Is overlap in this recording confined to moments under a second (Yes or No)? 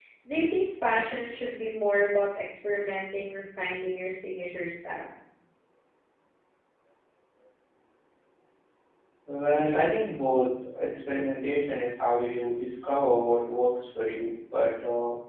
Yes